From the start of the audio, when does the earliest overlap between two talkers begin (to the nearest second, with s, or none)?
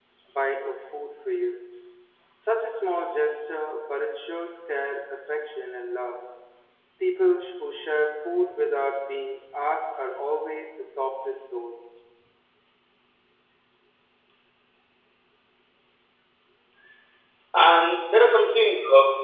none